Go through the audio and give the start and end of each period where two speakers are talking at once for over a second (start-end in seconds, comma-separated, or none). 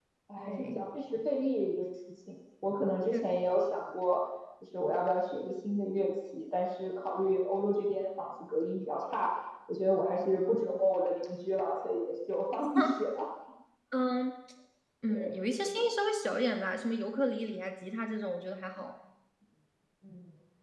none